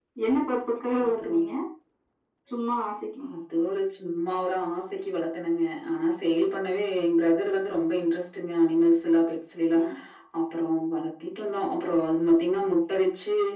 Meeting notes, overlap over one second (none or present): none